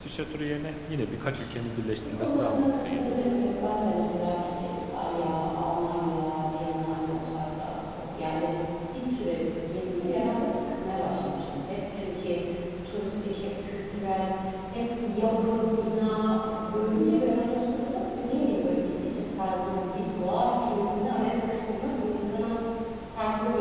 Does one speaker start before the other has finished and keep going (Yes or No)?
Yes